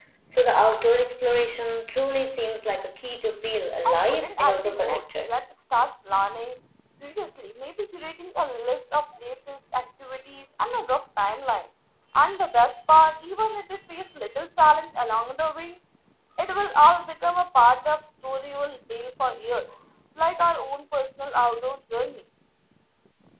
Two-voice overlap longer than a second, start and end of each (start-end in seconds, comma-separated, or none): 3.9-5.3